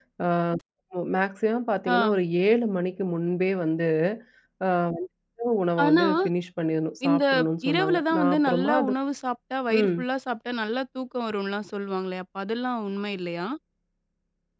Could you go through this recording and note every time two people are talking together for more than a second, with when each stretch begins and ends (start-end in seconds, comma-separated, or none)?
7.7-8.9